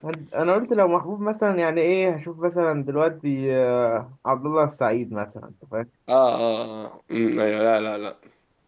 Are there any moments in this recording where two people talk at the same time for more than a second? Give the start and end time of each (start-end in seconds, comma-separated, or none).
none